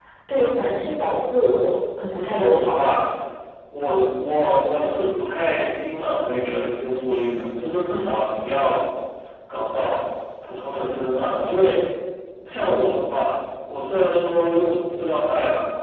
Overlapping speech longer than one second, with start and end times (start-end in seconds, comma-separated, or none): none